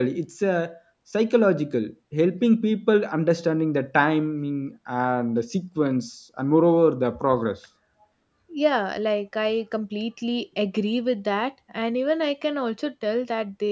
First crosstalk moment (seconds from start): none

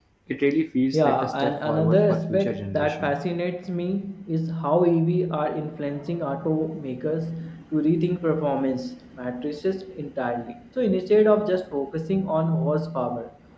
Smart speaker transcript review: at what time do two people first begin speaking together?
0.9 s

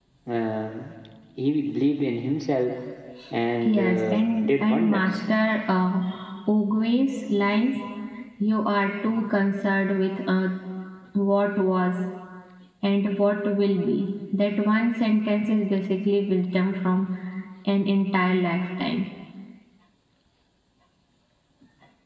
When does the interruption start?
3.6 s

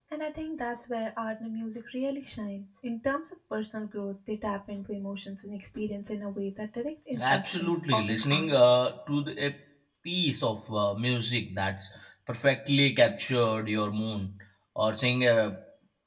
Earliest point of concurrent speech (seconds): 7.1 s

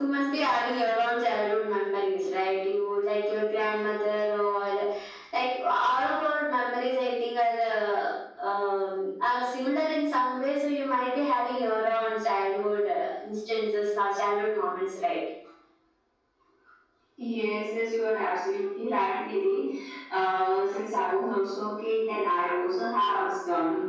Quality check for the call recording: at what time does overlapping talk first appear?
none

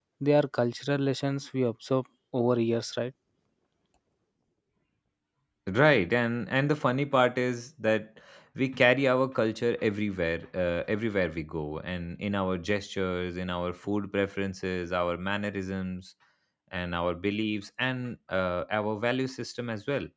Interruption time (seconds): none

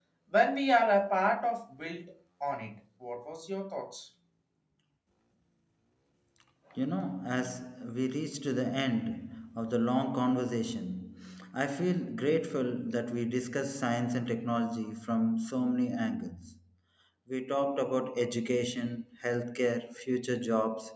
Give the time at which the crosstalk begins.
none

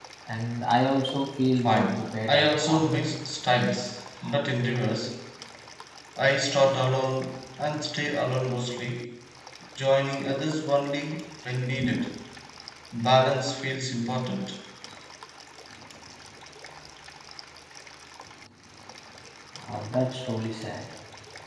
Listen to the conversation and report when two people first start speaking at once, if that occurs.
1.6 s

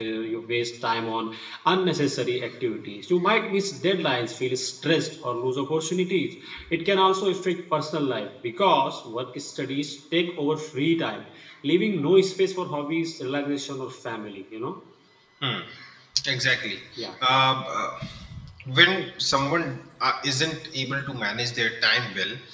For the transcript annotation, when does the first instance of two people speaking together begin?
none

